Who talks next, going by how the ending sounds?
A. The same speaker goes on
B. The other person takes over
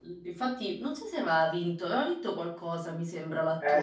B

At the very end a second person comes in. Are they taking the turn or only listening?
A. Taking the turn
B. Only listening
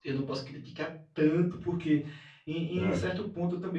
B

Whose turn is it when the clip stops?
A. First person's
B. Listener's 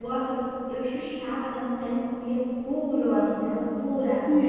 B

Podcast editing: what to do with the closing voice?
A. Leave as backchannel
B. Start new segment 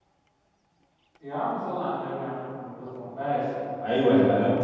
B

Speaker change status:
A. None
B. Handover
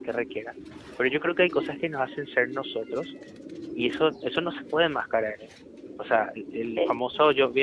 A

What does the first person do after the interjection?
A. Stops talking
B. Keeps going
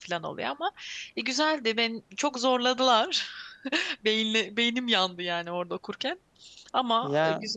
A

